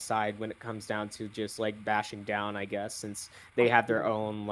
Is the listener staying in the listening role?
Yes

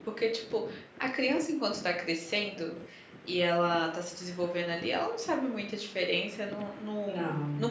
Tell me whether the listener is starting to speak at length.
No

